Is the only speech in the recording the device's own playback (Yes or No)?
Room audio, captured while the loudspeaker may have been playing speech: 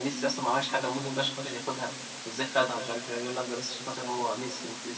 Yes